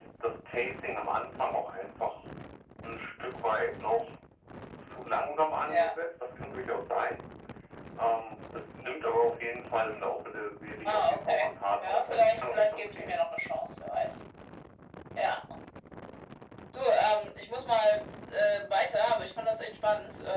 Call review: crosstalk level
present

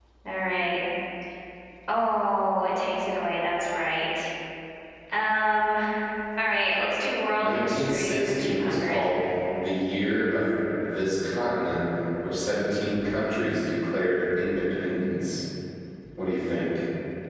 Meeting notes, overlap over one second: present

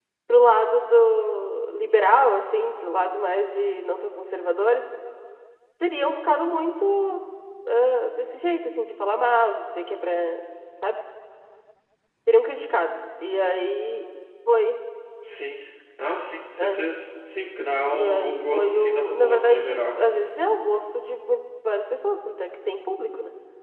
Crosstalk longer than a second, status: present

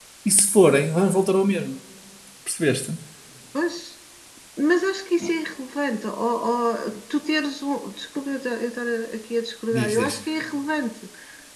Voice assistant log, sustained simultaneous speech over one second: none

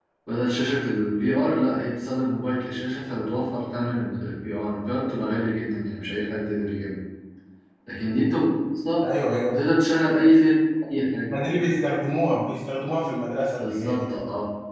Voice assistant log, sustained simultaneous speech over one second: none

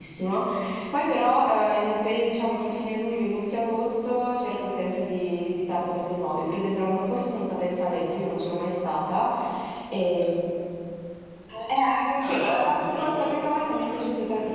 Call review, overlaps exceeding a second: present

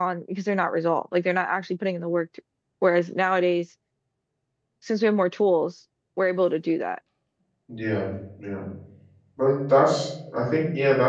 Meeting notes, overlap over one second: none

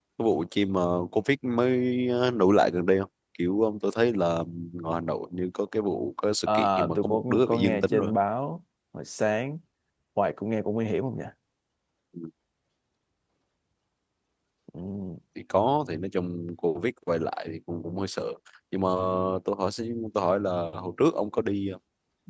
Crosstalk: present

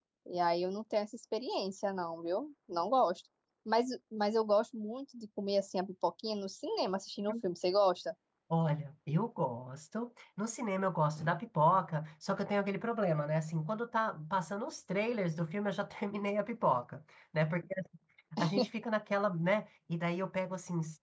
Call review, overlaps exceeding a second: none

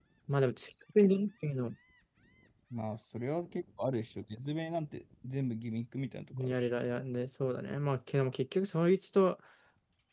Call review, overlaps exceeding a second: none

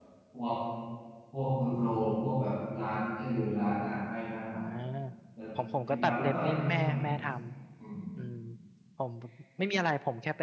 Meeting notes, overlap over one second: present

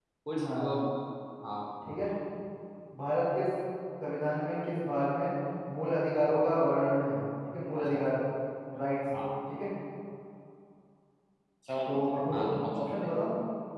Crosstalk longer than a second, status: present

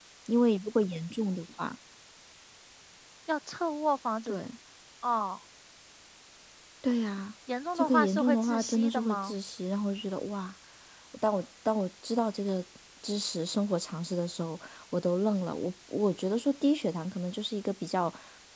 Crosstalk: present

